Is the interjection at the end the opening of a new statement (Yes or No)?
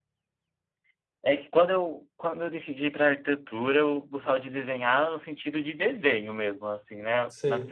No